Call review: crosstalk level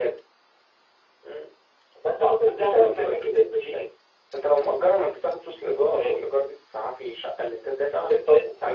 present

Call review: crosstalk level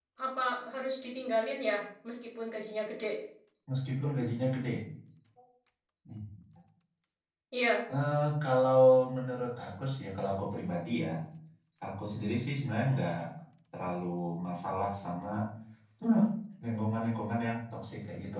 none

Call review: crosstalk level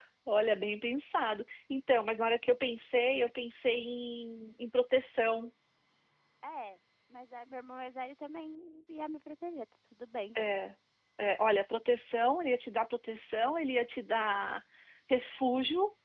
none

